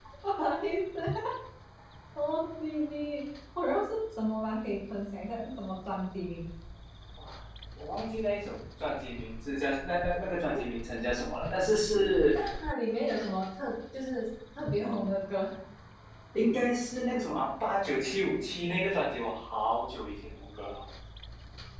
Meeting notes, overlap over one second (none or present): none